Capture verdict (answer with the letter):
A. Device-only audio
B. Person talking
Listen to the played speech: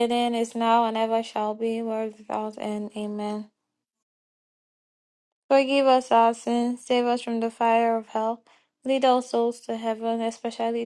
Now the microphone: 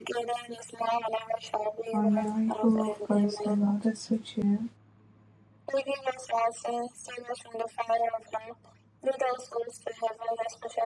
B